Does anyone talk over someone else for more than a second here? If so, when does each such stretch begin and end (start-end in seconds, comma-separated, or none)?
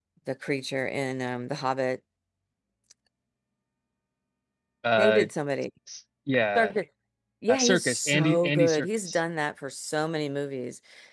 7.5-9.2